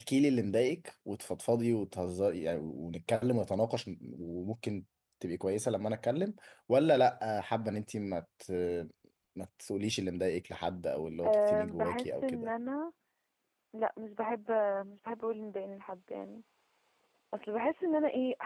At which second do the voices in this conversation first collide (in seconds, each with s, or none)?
11.2 s